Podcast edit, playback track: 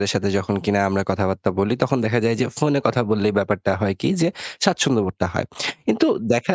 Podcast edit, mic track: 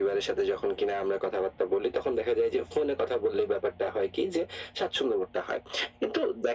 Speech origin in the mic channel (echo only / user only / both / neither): echo only